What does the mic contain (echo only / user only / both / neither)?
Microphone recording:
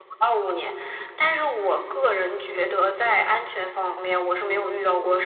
echo only